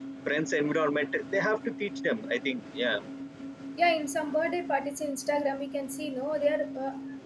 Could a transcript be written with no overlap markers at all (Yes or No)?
Yes